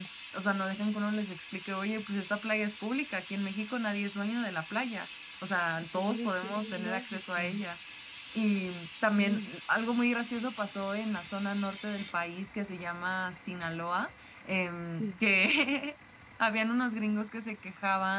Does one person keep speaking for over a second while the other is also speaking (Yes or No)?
Yes